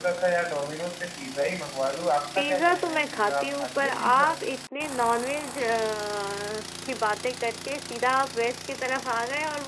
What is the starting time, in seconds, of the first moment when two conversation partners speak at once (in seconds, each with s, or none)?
2.4 s